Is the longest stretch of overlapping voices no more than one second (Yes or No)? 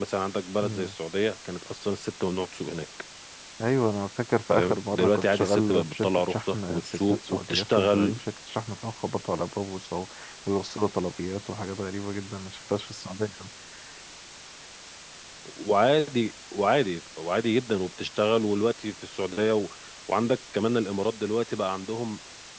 No